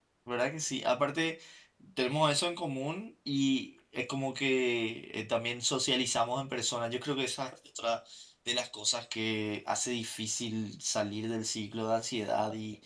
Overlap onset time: none

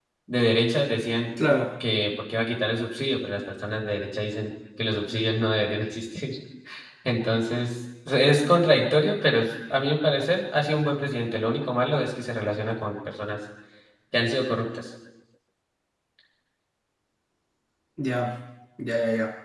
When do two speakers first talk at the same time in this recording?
none

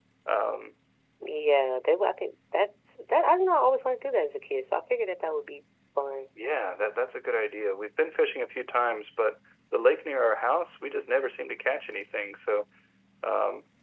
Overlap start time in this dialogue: none

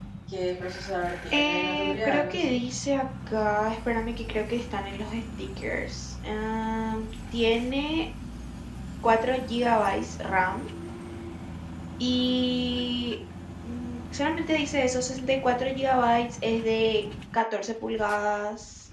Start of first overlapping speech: 1.3 s

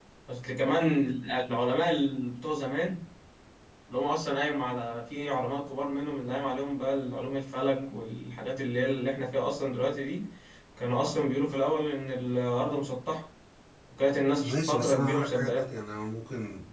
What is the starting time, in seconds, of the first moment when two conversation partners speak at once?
14.4 s

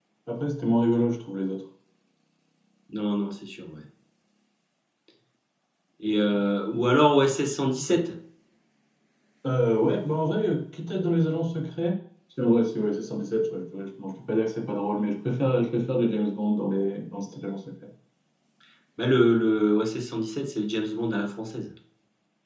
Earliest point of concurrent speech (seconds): none

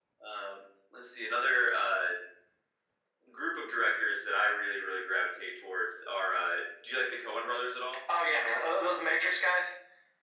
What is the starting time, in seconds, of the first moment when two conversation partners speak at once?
none

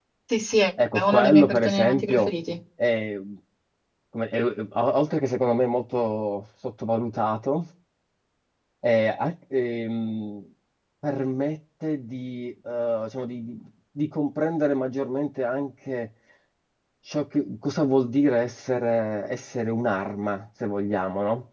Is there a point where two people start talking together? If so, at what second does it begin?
0.9 s

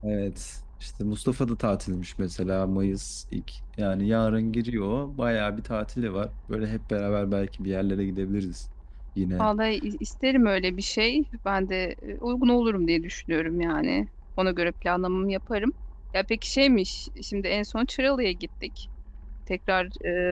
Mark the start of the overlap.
none

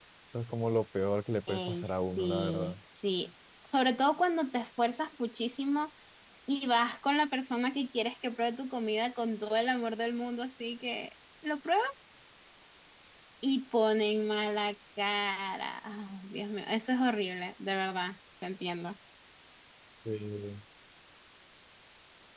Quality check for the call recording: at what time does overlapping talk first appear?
1.5 s

